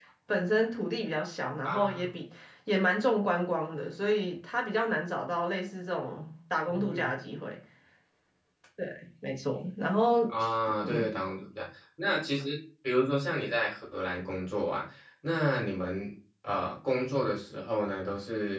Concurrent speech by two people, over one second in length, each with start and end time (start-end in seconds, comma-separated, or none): none